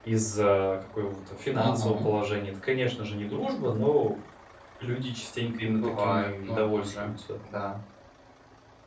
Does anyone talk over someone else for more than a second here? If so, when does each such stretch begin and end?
5.6-7.1

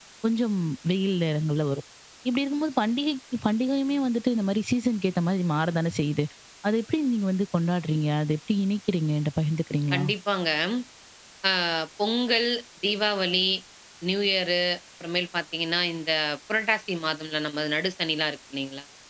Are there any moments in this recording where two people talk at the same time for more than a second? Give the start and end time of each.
none

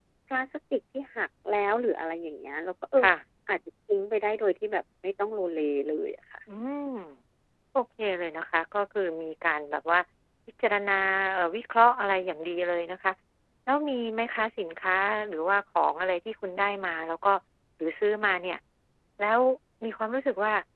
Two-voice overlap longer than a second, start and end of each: none

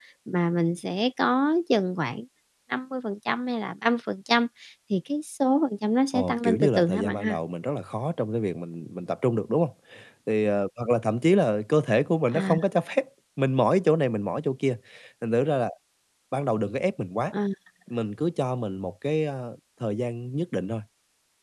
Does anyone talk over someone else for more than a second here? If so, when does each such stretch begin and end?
6.1-7.4

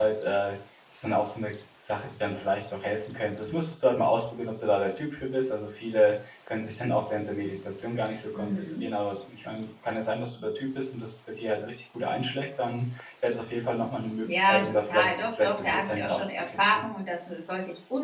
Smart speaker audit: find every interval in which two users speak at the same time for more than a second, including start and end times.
14.2-16.8

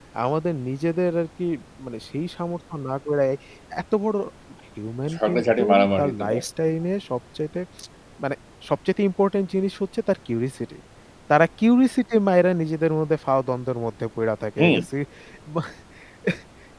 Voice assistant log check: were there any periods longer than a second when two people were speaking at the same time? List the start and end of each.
5.1-6.4

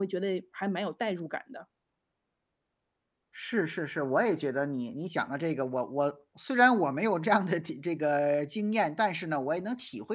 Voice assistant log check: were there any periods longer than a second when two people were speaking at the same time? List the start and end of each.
none

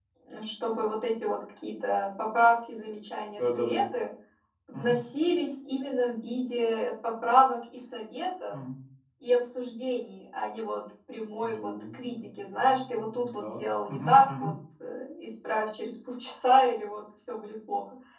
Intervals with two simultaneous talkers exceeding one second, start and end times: 11.4-14.5

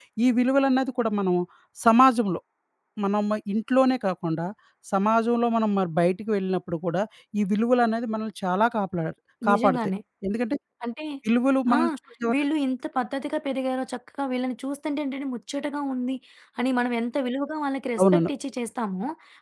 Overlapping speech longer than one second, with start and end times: none

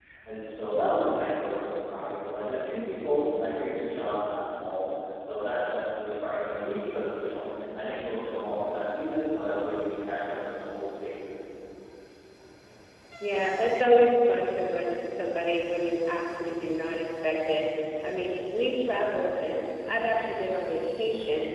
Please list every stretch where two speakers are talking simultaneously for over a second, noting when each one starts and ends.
none

